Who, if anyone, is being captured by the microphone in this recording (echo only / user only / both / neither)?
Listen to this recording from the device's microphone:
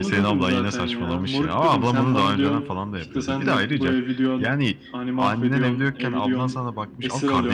both